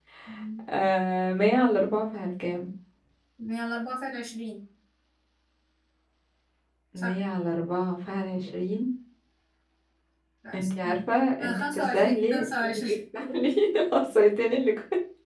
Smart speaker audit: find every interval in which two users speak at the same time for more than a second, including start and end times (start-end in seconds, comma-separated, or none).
11.4-12.9